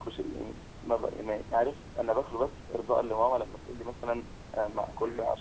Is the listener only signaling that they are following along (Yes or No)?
Yes